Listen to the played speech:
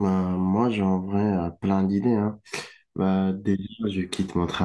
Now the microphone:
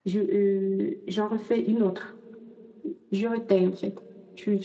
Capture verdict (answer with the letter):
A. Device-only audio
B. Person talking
B